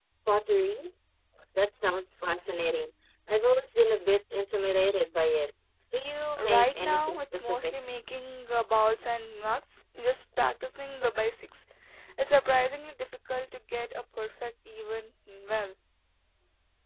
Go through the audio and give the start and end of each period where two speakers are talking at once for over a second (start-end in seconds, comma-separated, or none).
6.4-7.7